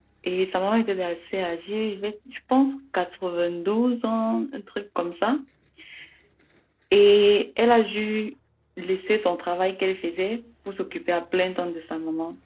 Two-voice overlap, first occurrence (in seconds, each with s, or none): none